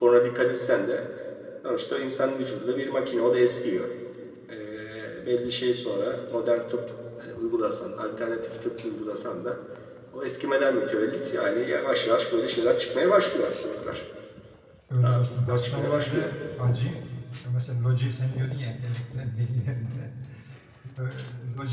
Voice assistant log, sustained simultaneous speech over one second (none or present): present